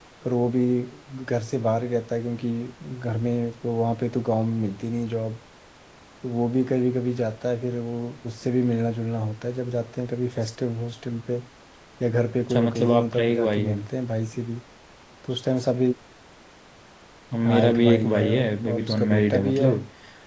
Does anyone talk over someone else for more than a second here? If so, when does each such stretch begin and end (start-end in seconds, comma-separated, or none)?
12.5-13.8, 17.4-19.7